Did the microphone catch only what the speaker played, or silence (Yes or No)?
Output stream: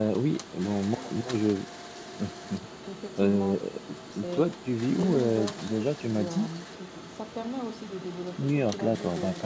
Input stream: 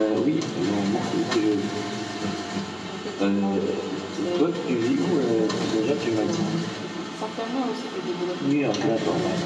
Yes